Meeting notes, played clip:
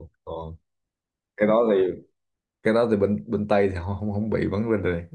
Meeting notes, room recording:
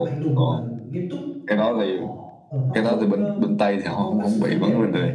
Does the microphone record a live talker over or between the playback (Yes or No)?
Yes